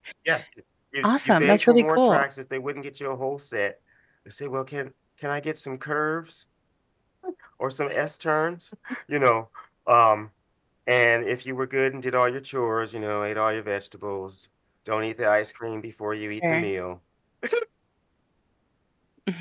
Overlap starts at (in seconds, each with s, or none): 1.0 s